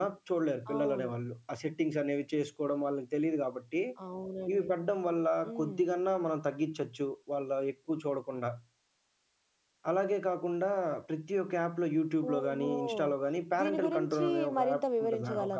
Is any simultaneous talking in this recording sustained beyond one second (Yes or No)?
Yes